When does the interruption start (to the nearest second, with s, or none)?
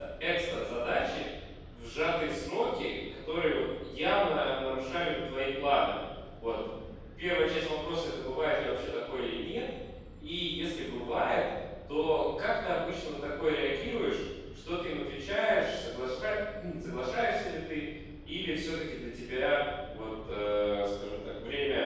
none